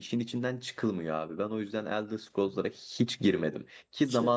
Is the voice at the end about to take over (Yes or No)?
No